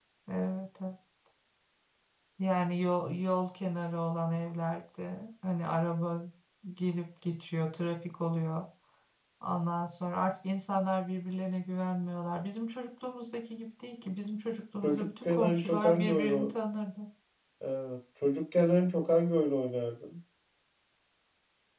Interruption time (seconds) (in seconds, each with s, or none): 14.8 s